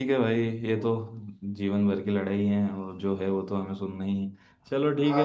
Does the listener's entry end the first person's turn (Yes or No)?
No